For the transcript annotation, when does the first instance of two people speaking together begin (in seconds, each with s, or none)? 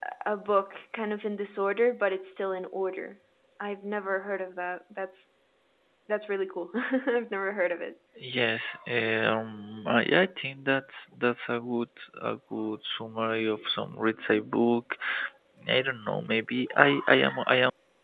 none